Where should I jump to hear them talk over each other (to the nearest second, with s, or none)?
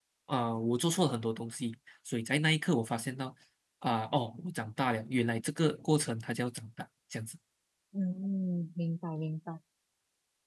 none